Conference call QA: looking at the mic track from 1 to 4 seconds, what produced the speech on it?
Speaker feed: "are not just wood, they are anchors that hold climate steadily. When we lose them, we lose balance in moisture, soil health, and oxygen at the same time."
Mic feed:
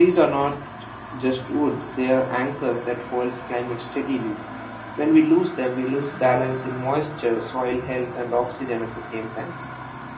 echo only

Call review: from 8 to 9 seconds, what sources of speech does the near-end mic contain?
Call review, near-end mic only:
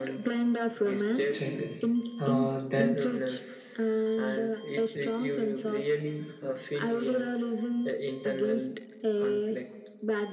echo only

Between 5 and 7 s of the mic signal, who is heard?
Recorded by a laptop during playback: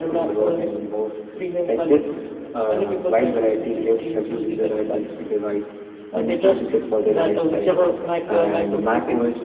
echo only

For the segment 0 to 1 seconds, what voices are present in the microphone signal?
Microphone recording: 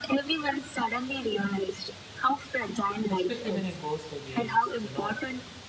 echo only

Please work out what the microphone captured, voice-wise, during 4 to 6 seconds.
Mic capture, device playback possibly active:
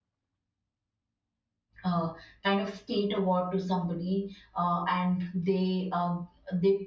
user only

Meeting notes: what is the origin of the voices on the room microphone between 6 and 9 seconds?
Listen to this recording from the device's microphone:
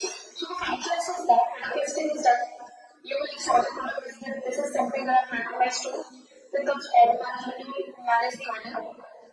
echo only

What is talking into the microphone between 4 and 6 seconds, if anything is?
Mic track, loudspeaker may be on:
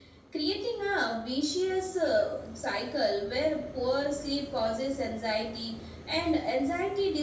echo only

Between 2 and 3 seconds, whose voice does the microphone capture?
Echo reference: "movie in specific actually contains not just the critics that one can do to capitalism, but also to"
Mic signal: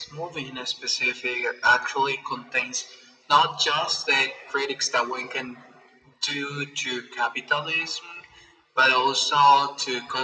echo only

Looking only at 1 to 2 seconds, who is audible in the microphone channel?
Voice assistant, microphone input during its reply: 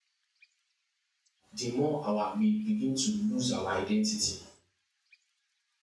user only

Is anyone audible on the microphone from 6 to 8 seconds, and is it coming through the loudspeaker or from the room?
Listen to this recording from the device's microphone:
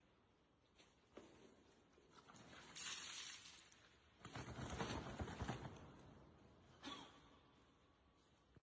neither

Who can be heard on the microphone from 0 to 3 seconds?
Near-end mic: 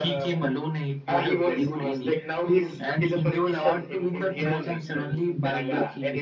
echo only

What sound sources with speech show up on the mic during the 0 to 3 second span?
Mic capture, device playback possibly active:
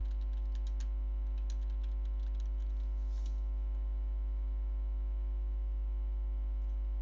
neither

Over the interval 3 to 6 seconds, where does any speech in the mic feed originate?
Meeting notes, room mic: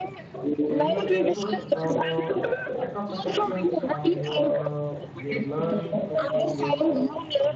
both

